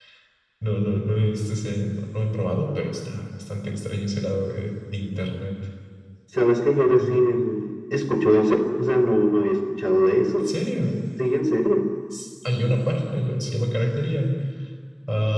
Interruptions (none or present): none